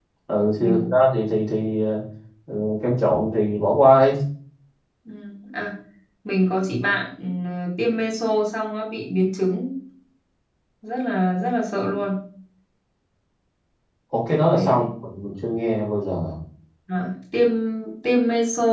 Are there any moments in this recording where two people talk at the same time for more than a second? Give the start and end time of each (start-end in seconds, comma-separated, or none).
none